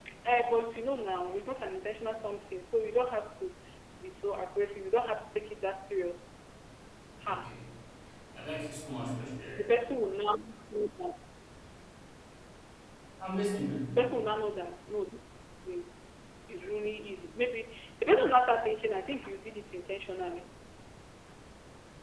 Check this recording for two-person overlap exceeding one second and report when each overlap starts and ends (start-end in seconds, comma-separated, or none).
none